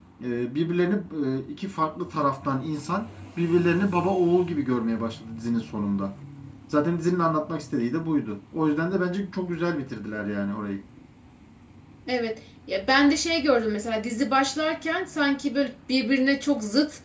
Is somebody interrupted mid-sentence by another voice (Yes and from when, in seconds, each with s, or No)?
No